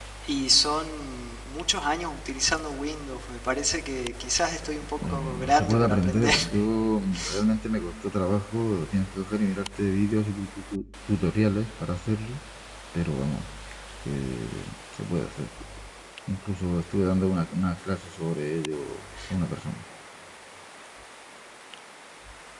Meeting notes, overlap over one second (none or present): present